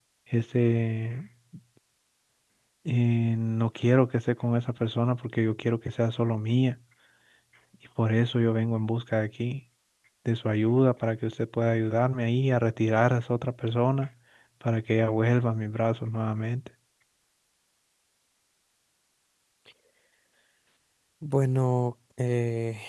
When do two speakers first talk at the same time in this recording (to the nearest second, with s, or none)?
none